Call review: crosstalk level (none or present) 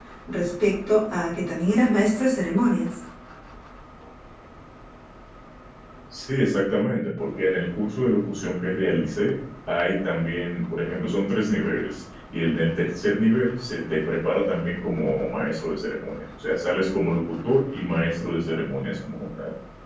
none